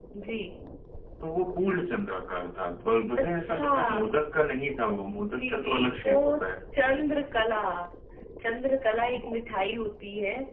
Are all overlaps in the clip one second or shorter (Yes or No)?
No